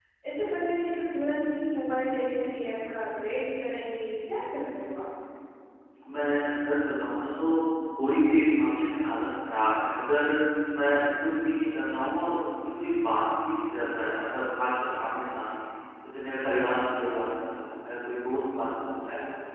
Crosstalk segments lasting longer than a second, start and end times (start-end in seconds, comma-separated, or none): none